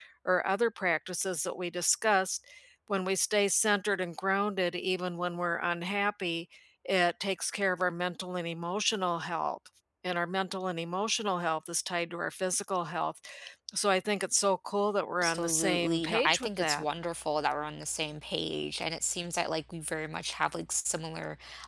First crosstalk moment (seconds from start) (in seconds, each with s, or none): 15.2 s